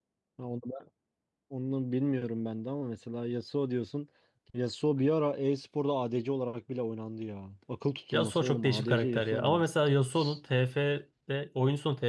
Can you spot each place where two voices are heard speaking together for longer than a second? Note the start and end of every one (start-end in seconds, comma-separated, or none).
8.1-9.6